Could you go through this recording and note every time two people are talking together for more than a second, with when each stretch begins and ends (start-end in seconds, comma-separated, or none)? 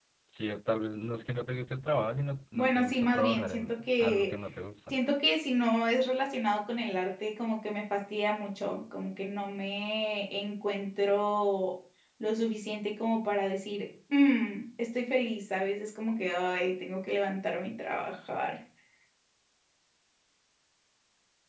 2.5-4.4